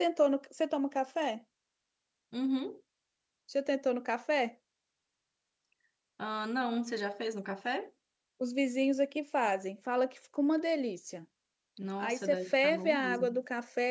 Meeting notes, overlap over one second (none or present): present